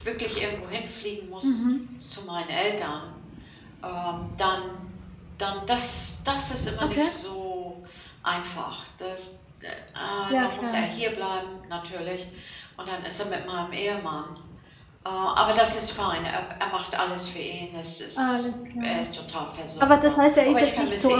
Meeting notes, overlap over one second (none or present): present